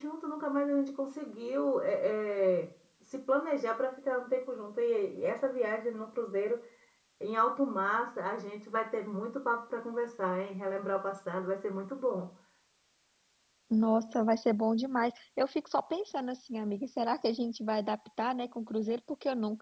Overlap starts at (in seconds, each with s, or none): none